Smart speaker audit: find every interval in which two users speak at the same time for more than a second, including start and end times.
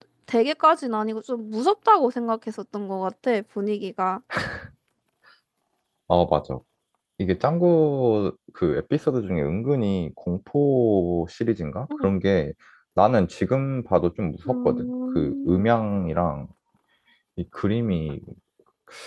14.4-15.7

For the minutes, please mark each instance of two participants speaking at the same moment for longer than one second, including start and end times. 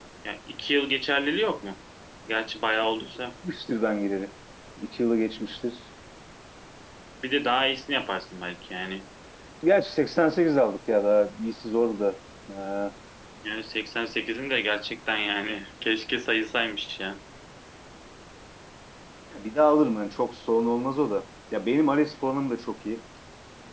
none

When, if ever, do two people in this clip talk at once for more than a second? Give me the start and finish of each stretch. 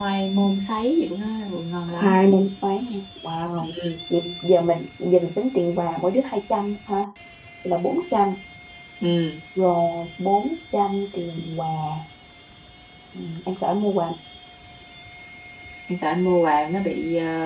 none

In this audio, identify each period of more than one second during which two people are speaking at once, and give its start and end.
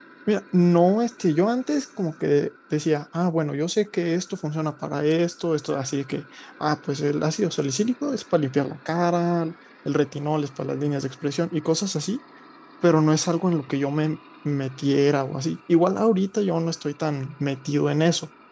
none

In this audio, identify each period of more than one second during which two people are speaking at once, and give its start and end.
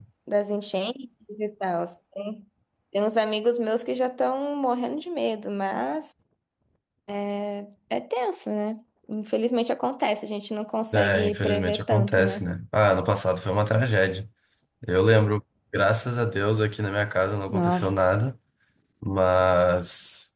10.9-12.5

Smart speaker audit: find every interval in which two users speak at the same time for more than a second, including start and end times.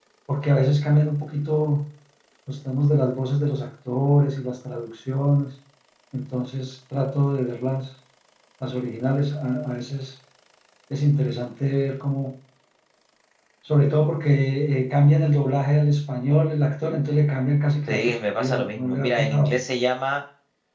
17.9-19.6

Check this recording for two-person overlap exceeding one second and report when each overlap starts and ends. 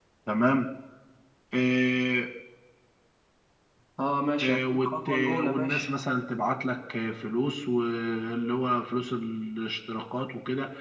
4.4-5.9

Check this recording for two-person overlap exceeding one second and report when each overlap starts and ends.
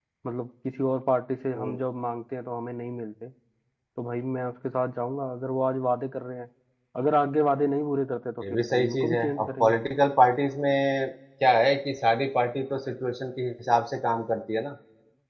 8.4-9.8

